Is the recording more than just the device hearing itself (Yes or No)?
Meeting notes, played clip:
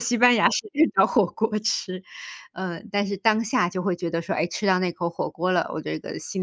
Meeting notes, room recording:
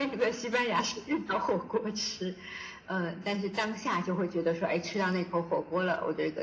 No